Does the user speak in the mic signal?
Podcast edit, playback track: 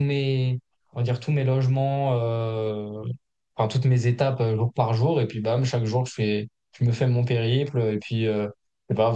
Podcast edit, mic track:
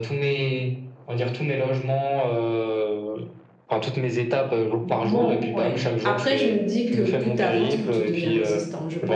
Yes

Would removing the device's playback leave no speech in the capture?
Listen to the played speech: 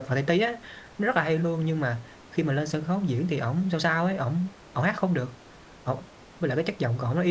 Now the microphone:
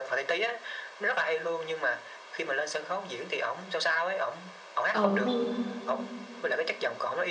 No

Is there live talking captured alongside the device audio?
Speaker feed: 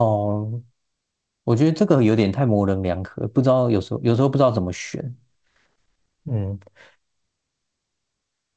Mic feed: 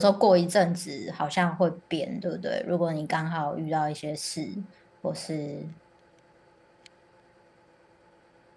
Yes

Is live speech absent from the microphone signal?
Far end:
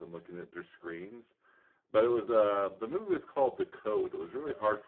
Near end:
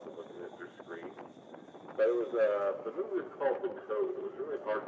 Yes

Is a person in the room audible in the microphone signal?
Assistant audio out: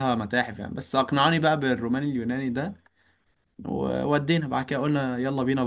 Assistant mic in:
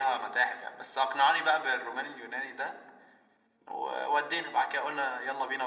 No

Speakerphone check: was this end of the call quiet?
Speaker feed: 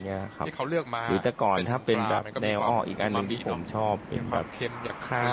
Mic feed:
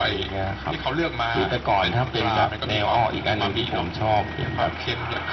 Yes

